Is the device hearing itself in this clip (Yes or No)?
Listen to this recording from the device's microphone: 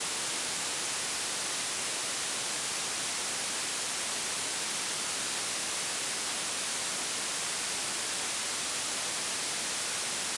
No